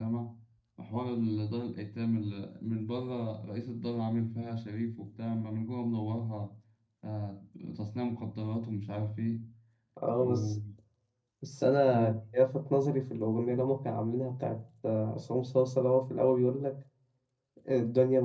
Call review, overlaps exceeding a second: none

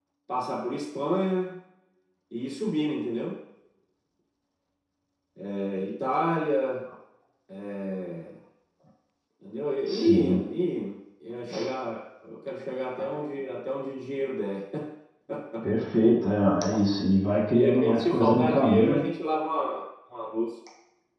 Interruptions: present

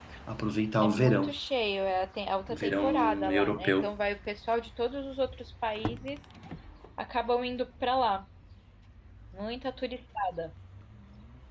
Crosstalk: present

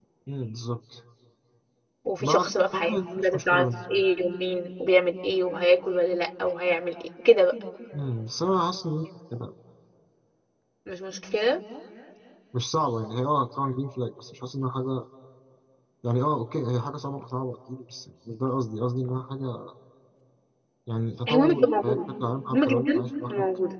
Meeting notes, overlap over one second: present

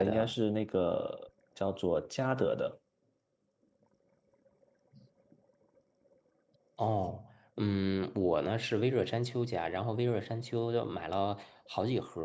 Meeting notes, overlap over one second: none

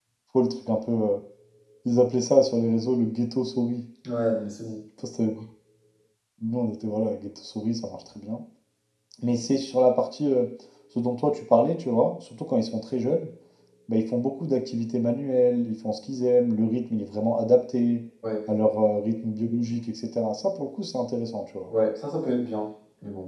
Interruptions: none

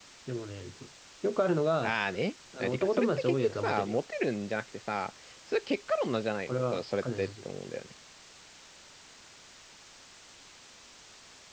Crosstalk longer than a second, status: present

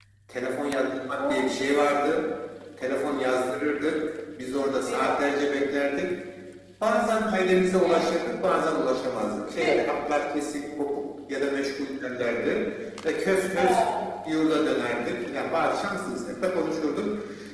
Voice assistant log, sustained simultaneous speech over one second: none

